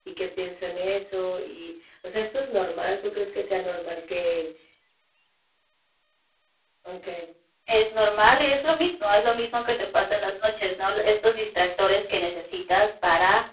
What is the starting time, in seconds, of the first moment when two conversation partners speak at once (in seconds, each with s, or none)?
none